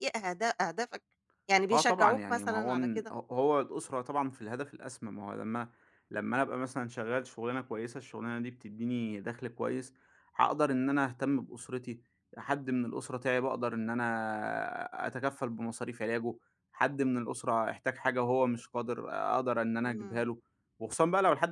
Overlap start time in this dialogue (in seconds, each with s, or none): 1.7 s